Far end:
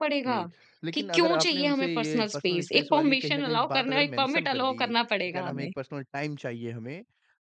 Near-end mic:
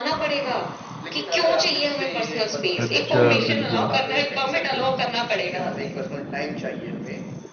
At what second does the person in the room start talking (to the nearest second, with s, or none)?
3 s